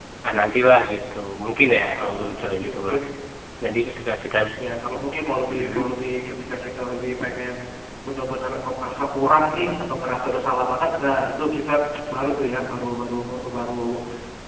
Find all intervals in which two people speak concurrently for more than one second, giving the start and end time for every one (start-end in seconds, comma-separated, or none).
1.8-3.0